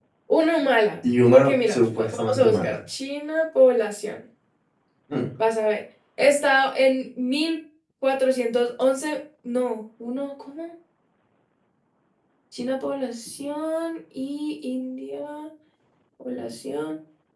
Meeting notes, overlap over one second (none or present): present